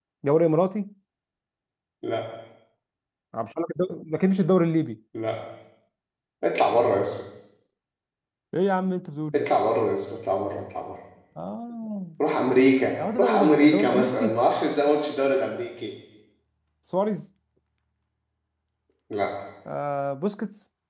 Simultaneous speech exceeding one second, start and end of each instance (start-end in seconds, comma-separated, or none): 13.2-14.4